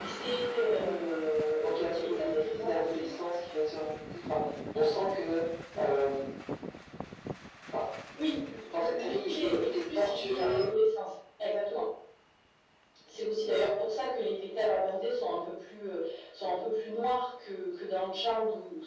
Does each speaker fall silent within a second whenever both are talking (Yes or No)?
No